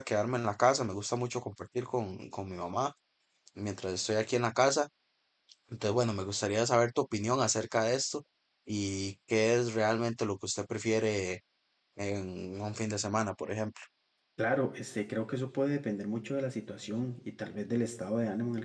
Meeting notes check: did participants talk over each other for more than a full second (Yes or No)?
No